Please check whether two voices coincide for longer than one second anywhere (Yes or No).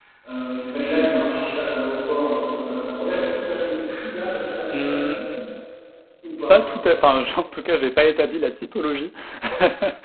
No